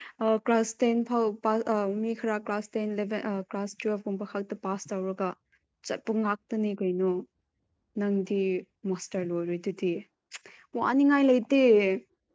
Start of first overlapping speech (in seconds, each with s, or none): none